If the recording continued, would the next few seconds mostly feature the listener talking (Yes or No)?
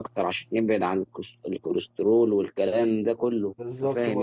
Yes